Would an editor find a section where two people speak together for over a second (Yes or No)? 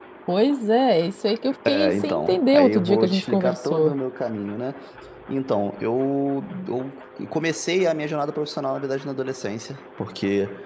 Yes